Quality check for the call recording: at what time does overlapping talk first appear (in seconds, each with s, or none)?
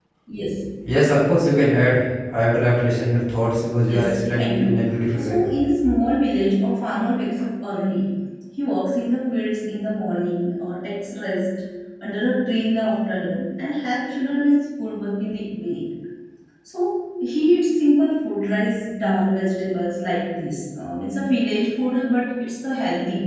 3.9 s